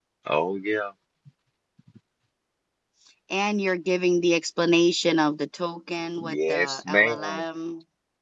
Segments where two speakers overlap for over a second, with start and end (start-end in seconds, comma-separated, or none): 6.2-7.4